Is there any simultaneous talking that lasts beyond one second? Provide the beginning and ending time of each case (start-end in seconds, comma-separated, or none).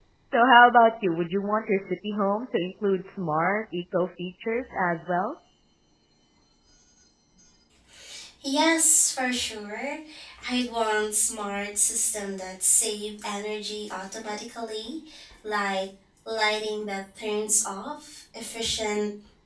none